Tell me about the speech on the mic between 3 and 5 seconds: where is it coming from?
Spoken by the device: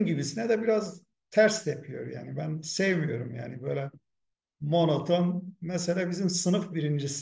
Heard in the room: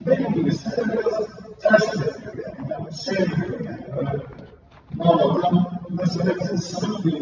echo only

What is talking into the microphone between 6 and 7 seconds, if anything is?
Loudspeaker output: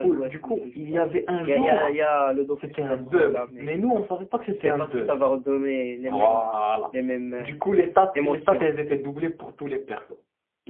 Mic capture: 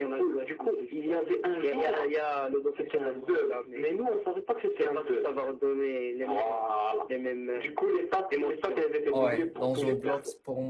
echo only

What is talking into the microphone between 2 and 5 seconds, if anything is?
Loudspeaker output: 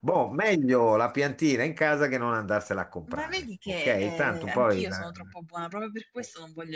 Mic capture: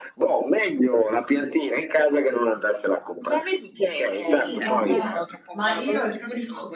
both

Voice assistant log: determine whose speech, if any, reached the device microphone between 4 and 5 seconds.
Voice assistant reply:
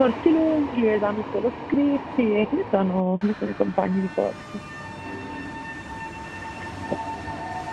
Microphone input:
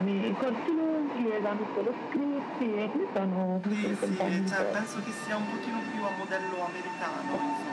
both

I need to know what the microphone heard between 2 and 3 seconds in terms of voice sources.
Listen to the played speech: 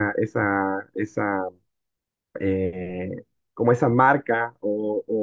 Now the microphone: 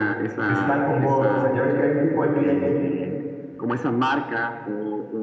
both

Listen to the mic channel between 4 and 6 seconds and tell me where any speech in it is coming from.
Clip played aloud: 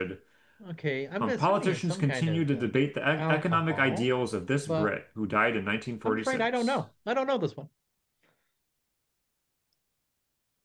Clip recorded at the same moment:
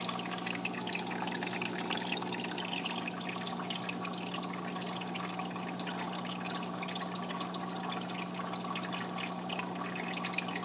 neither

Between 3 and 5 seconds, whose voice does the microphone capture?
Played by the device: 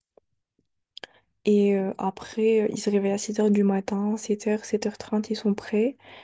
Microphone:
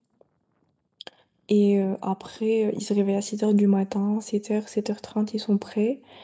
echo only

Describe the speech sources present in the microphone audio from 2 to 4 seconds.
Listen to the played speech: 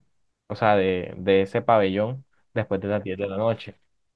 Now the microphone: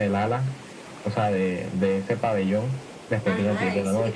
both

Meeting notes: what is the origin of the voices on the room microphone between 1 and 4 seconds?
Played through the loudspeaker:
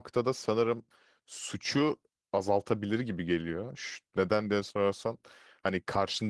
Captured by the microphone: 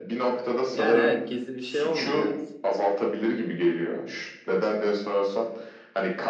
both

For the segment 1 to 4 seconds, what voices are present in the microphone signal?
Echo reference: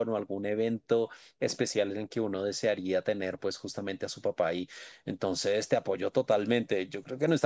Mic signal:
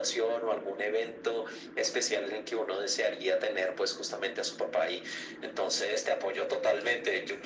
echo only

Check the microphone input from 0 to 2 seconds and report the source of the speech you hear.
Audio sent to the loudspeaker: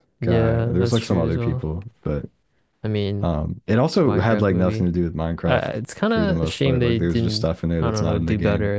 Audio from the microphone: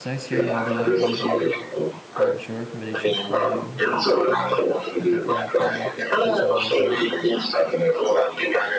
both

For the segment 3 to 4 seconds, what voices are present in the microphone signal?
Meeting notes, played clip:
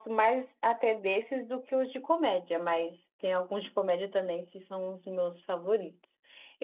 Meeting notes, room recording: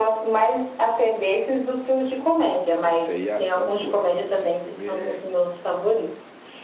both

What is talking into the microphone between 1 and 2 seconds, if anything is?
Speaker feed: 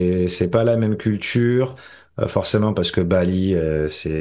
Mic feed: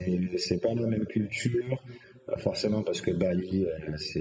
echo only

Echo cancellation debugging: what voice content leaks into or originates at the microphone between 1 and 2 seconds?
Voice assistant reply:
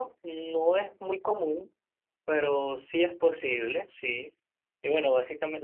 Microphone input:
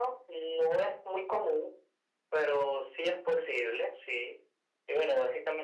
echo only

